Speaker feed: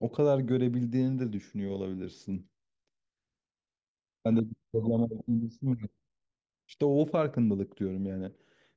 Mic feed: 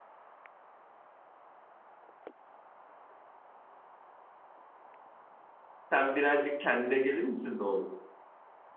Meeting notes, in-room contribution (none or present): present